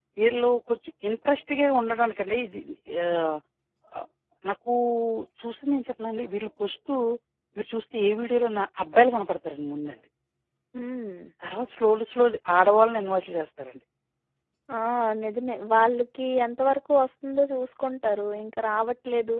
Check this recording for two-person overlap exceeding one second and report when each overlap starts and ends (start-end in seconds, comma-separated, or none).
none